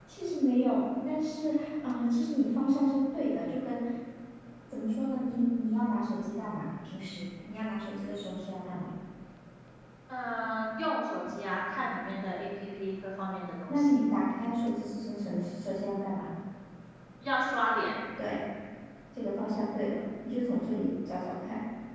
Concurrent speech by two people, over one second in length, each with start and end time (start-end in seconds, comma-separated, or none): none